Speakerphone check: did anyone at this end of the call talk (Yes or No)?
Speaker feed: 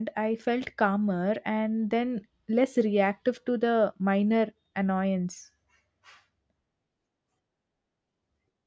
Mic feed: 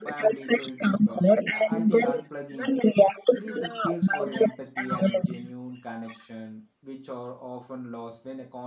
Yes